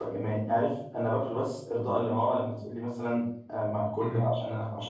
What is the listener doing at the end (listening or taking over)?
listening